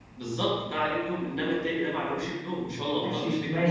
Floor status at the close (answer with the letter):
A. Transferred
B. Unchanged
A